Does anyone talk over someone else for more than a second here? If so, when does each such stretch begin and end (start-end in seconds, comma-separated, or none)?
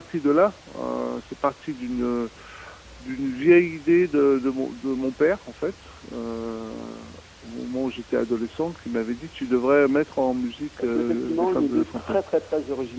10.8-12.2